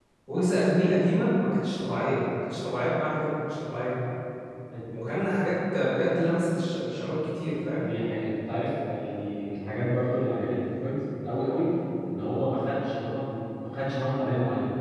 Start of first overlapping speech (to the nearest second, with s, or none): none